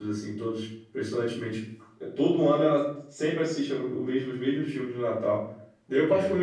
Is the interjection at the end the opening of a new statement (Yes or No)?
No